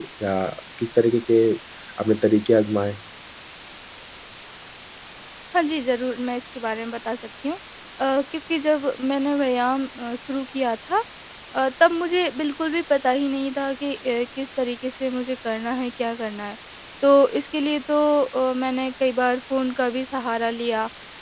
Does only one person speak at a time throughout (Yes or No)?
Yes